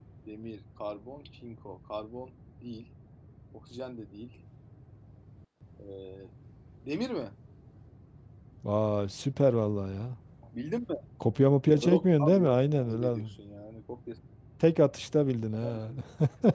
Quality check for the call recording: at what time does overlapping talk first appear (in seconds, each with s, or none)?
11.8 s